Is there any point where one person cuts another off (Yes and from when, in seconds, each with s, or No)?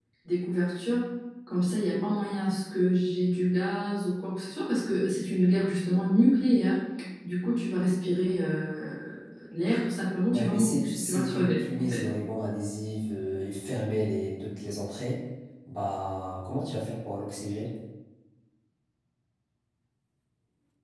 Yes, from 10.3 s